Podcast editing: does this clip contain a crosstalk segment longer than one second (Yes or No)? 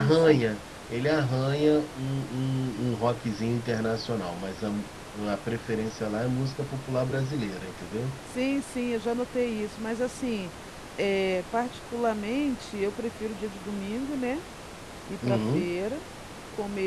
No